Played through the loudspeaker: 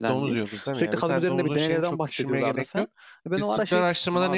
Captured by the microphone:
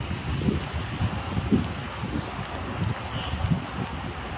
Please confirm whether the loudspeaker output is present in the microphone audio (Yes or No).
No